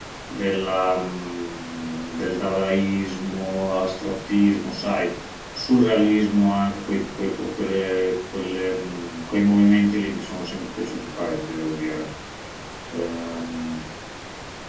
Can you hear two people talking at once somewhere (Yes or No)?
No